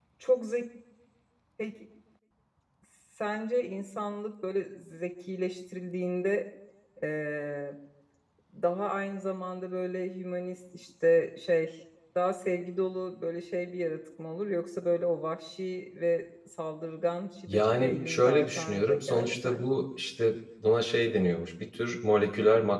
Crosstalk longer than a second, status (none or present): present